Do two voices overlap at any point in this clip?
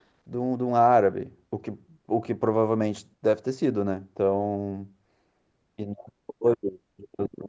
No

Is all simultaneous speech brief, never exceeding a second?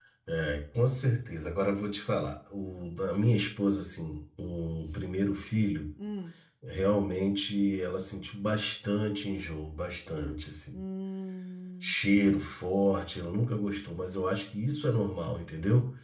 Yes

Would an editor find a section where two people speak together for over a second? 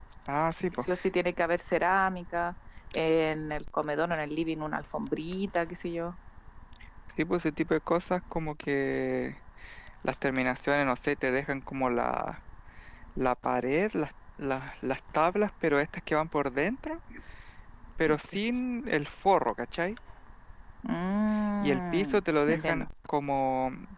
Yes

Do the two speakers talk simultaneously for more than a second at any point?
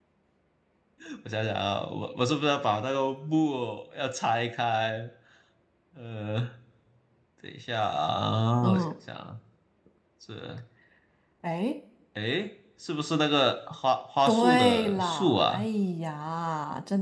Yes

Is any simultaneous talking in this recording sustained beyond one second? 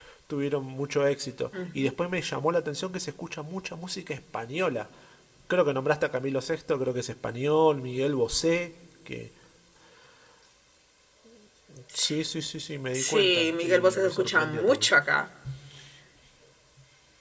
Yes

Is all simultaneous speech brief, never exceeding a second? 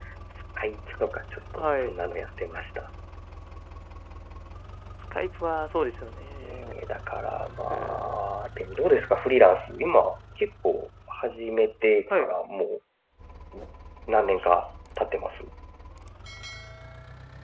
Yes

